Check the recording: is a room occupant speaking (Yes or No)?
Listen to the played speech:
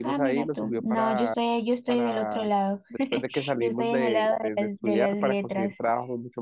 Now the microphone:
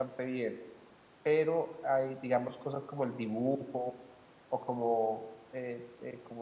Yes